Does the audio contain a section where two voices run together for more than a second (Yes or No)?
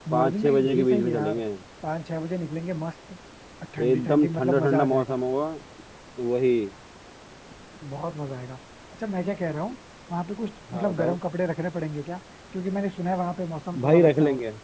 Yes